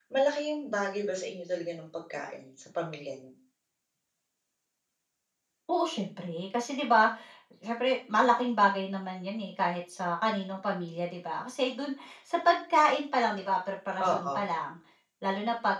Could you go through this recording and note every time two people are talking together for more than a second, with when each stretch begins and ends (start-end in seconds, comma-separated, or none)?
none